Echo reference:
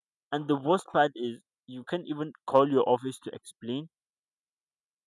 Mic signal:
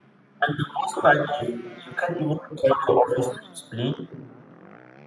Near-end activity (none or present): none